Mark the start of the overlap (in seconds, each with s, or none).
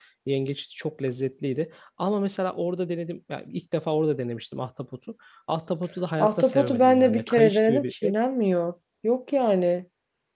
6.2 s